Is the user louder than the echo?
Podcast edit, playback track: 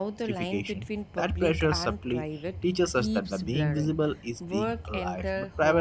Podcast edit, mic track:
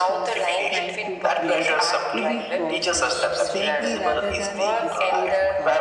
No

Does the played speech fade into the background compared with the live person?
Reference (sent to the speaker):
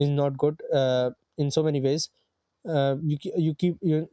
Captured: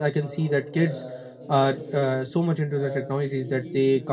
Yes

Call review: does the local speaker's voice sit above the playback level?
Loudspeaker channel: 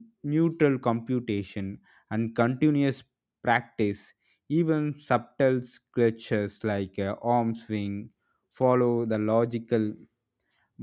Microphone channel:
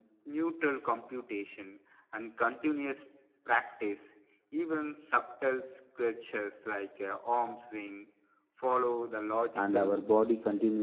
Yes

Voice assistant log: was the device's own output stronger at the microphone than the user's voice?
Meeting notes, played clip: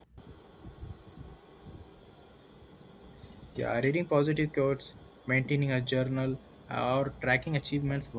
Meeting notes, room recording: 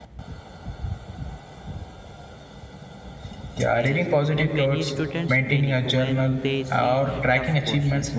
Yes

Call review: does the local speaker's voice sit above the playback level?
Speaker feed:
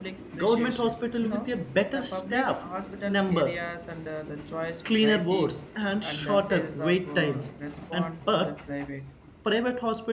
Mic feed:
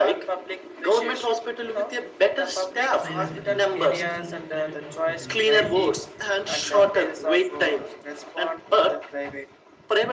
No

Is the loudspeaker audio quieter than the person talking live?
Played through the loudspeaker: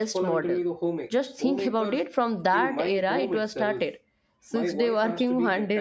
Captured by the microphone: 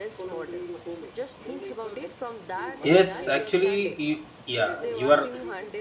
Yes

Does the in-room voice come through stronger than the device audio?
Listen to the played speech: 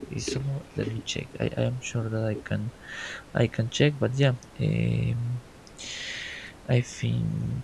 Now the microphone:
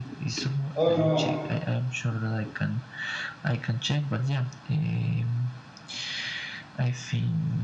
Yes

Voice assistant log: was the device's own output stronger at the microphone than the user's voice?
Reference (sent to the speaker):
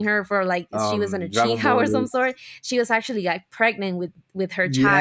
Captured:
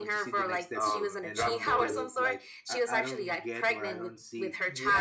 Yes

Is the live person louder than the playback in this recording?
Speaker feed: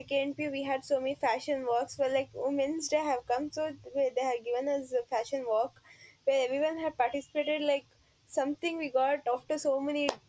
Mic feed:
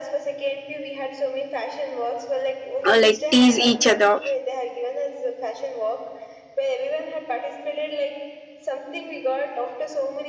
Yes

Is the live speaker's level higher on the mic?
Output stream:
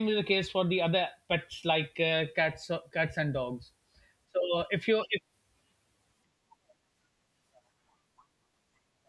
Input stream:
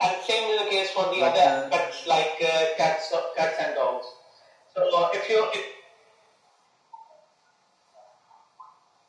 No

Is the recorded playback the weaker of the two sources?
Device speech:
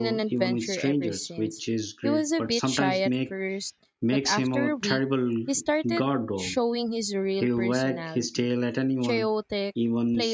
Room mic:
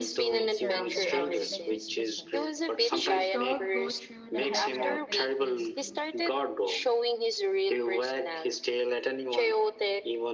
No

